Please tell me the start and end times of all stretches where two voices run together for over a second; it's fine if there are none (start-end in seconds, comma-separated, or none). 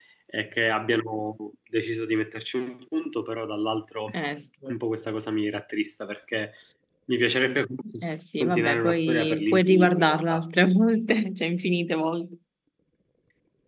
8.4-10.4